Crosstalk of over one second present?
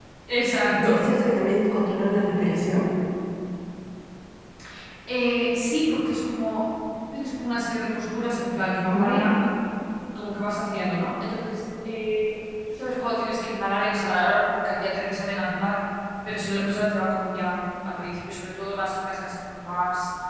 No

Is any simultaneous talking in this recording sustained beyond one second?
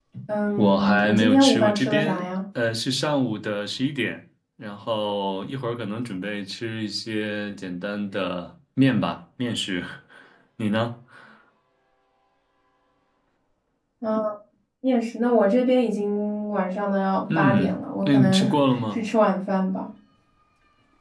Yes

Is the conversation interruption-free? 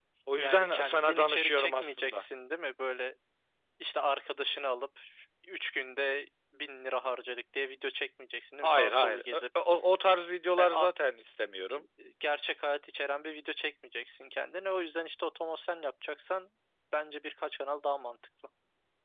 No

